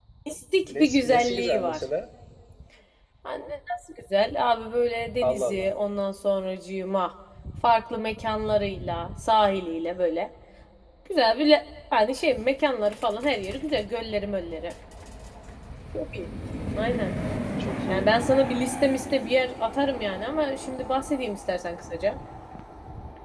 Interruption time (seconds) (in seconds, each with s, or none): 0.6 s